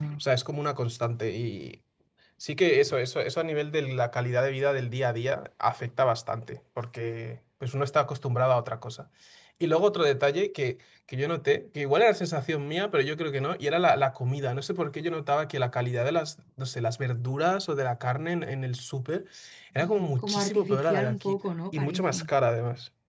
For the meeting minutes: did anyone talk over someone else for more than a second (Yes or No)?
Yes